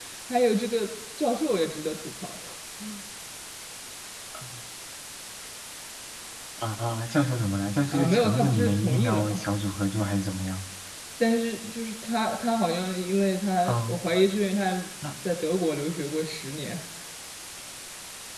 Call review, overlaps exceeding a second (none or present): present